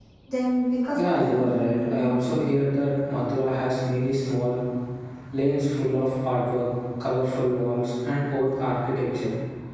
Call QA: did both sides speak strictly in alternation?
No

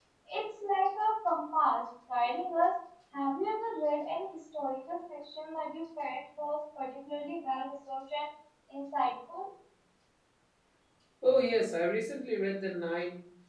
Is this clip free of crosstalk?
Yes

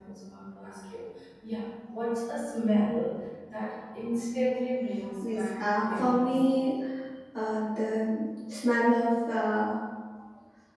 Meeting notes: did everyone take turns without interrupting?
No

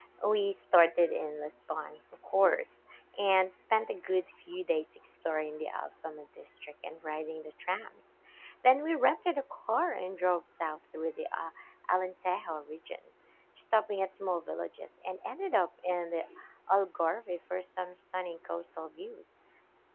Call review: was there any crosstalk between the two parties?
No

